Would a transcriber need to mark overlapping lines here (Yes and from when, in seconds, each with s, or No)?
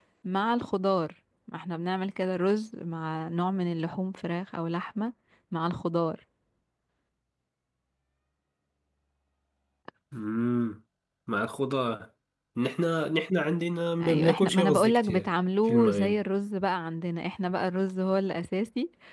Yes, from 14.0 s